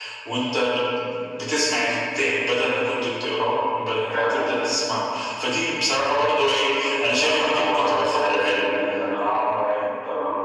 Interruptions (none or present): present